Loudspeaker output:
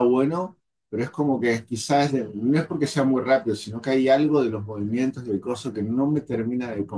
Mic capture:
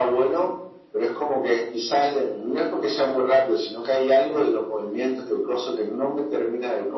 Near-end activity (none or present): none